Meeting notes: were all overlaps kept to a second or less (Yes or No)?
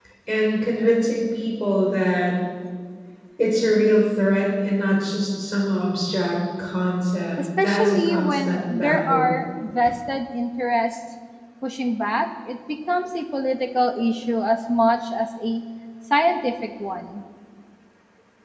No